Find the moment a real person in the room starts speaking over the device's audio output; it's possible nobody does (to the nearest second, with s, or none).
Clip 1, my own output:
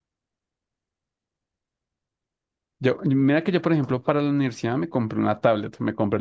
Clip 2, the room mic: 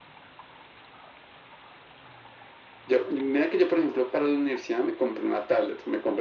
none